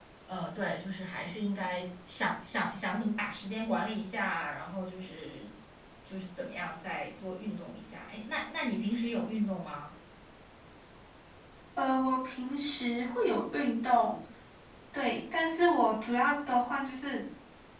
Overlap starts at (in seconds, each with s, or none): none